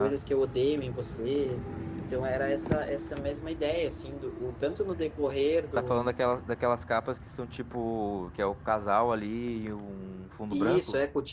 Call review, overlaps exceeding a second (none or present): none